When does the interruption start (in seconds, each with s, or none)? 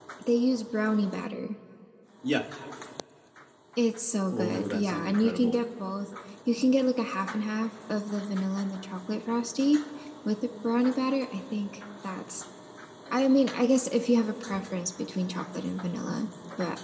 4.3 s